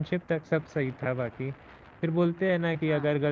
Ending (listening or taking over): listening